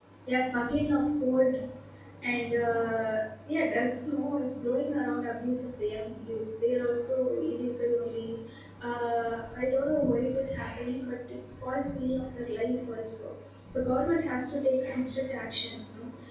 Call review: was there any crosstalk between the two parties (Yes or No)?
No